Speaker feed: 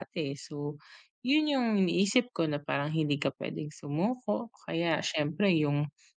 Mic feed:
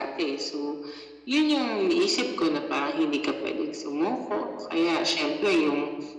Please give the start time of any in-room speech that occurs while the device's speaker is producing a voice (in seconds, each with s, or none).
none